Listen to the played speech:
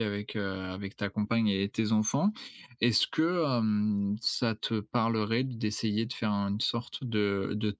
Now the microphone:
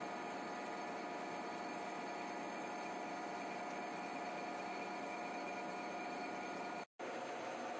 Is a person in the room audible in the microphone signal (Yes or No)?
No